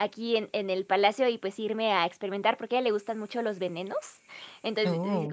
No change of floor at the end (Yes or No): Yes